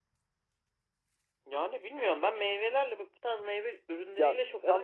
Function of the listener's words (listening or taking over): taking over